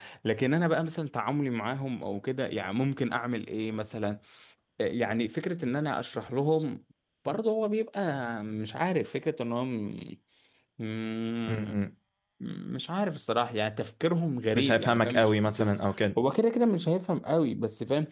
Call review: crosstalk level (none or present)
present